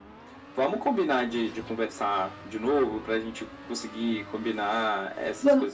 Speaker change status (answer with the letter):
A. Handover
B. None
A